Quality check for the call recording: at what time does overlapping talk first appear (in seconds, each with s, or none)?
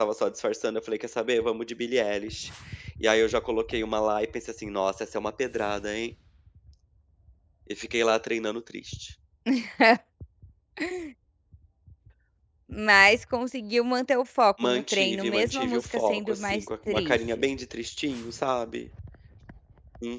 14.6 s